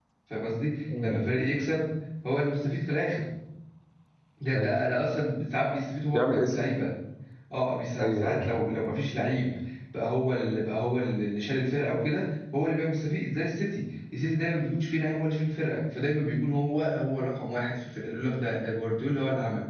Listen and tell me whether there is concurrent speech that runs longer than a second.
No

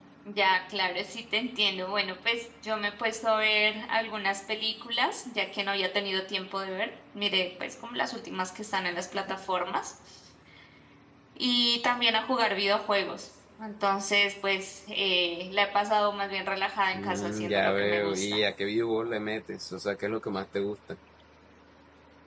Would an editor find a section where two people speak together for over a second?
Yes, from 16.9 s

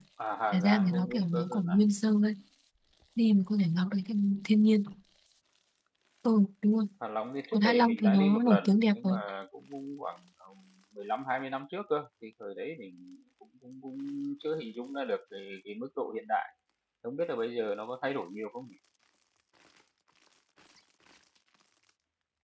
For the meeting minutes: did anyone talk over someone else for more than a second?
Yes, from 0.5 s

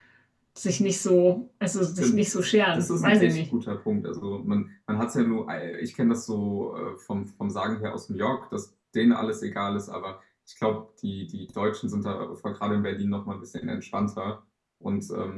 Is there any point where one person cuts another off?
Yes, from 2.0 s

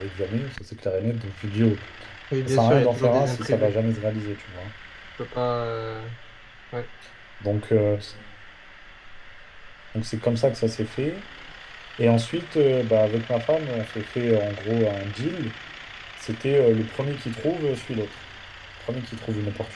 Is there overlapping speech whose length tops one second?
Yes, from 2.5 s

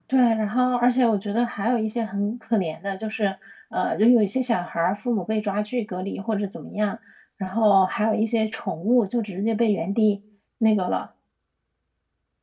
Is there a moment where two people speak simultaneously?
No

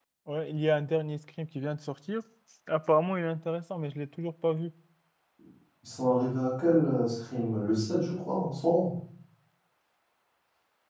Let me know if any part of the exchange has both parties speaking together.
No

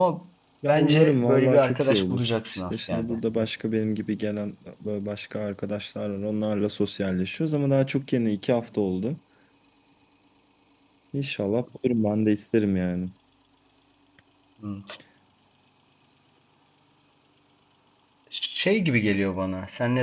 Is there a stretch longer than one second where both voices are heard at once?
Yes, from 0.7 s

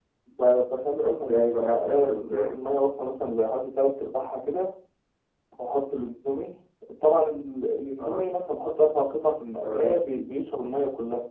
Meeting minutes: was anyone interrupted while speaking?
Yes, from 1.0 s

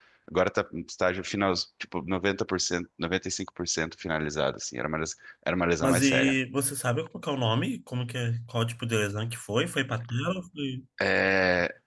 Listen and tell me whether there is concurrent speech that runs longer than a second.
No

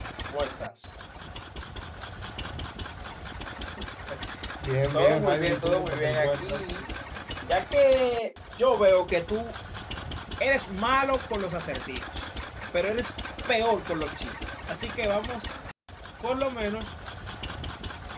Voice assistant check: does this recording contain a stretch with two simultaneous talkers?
Yes, from 4.9 s

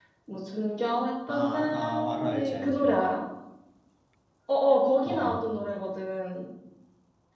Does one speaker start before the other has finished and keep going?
Yes, from 1.3 s

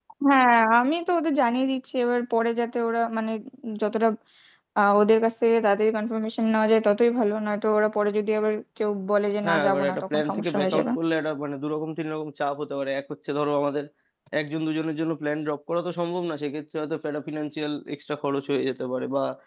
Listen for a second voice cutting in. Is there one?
Yes, from 9.4 s

